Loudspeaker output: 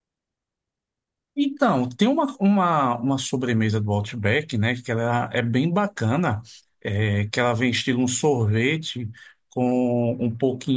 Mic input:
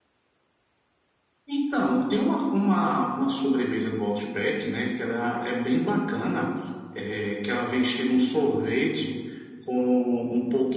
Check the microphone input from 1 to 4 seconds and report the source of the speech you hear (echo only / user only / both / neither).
echo only